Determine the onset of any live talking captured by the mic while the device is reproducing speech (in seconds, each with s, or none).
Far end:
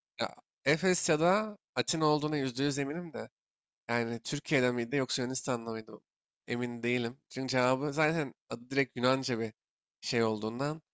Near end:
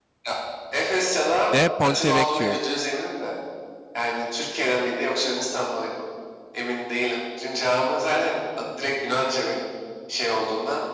1.5 s